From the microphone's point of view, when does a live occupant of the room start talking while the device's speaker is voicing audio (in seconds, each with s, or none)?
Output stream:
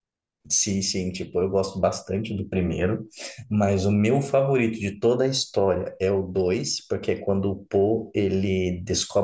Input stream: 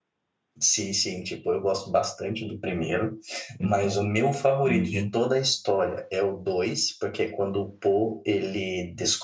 3.6 s